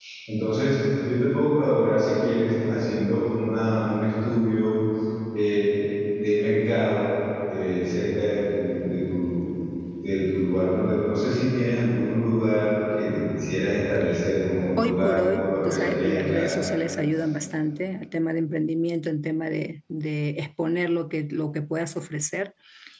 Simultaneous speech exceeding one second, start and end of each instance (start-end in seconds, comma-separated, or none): 14.8-16.6